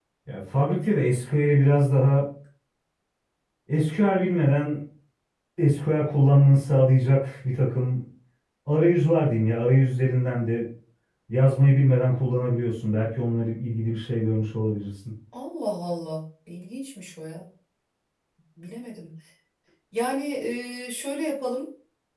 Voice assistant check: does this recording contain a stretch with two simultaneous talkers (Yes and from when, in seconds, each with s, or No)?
No